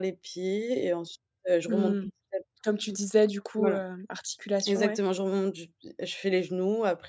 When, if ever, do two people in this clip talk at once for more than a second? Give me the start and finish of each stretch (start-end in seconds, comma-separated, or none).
none